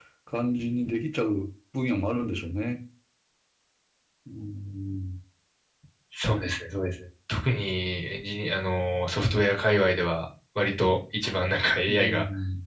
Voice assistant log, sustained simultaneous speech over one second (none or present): none